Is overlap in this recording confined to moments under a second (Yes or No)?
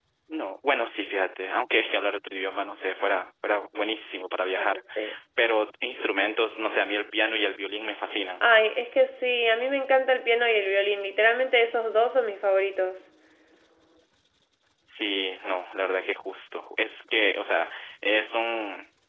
Yes